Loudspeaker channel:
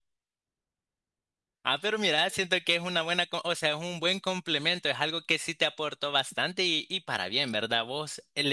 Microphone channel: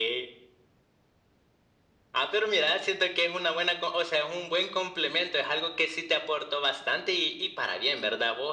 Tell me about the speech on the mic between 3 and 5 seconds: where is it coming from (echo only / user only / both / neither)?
echo only